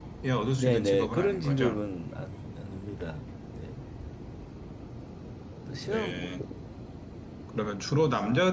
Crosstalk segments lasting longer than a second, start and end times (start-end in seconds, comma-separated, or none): 0.6-1.8